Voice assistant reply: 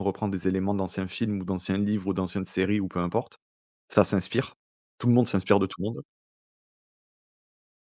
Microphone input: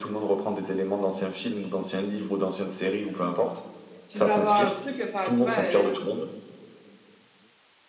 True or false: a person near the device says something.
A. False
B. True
B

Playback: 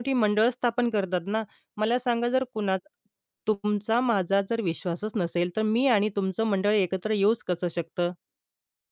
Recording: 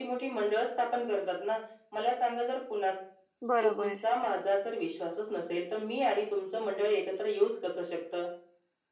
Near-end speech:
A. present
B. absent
A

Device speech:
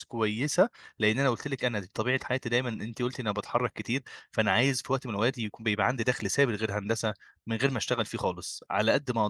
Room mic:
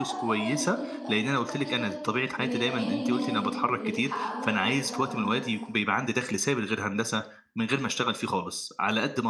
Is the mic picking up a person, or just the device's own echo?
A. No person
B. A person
B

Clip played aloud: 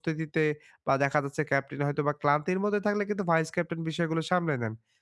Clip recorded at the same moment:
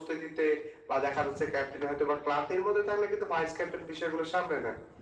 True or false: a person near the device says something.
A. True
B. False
B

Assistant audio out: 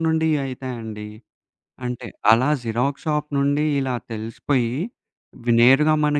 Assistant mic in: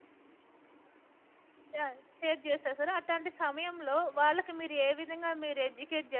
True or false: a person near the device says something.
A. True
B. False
A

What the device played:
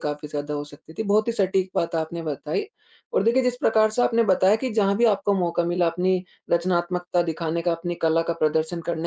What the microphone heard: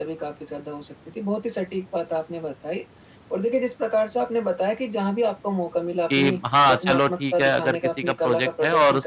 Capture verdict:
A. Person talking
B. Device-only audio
A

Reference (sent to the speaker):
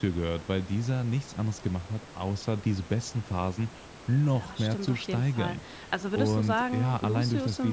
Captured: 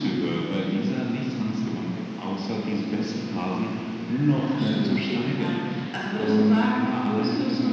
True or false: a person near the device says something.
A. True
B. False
B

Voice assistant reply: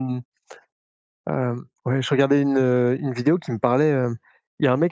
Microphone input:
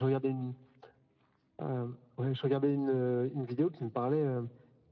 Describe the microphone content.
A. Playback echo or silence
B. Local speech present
A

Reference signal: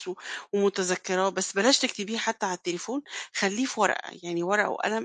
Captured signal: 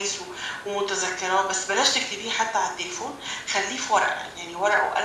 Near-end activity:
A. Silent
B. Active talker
A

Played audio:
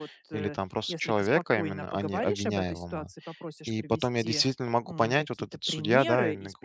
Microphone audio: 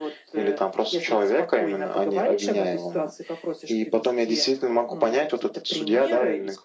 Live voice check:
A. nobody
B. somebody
A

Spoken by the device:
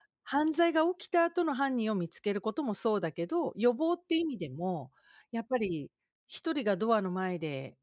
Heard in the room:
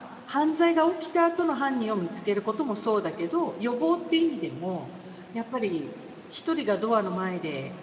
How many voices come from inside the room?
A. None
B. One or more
A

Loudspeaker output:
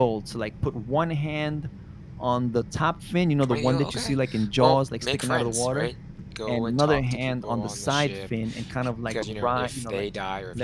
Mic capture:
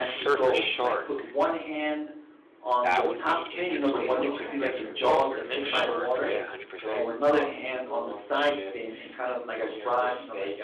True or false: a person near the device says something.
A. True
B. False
A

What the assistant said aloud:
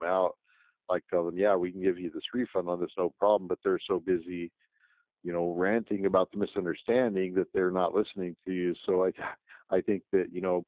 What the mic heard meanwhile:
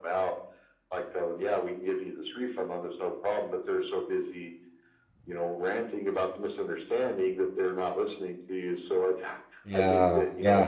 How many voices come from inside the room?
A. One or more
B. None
A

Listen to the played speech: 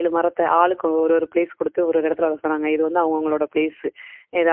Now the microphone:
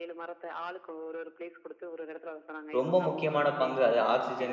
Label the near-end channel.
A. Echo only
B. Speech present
B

